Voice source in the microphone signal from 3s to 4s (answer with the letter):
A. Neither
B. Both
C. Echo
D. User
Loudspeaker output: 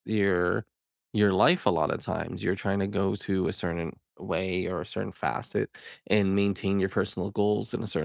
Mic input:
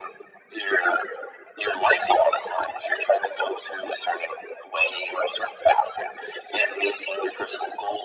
C